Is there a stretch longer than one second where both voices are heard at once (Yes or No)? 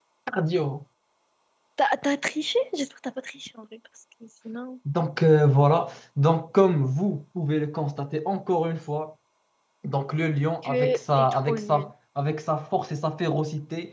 Yes